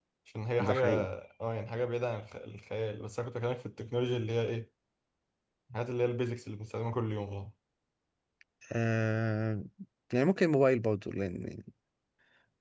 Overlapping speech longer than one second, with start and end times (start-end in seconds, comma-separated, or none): none